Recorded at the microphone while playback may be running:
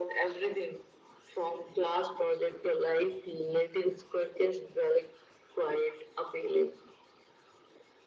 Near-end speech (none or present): none